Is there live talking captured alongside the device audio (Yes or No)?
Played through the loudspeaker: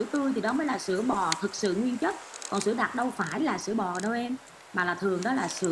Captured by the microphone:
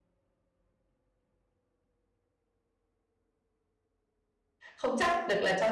Yes